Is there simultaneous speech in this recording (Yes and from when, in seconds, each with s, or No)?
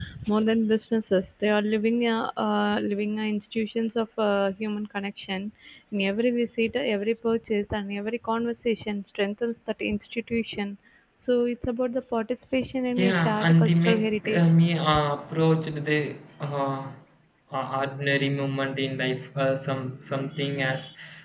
Yes, from 13.0 s